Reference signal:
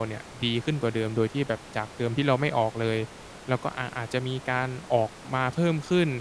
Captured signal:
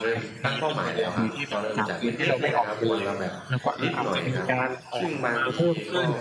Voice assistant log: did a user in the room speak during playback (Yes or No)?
Yes